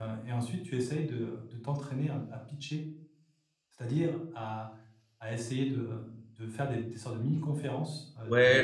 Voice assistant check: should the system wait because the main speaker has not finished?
No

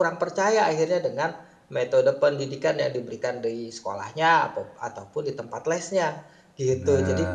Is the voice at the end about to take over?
No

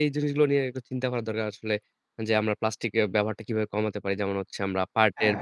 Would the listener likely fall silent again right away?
Yes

